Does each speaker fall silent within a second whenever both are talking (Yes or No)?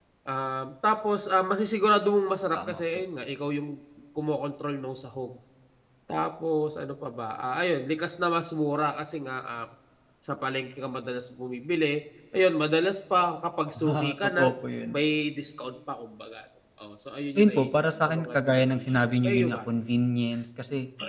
No